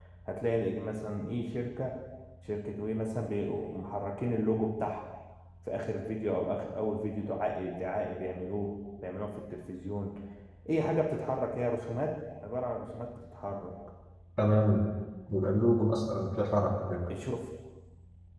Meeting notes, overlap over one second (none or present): none